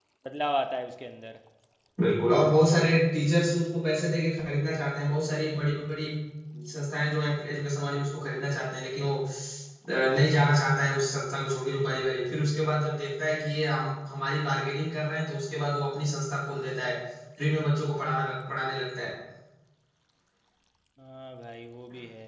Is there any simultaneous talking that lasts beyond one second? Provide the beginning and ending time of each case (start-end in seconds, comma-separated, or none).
none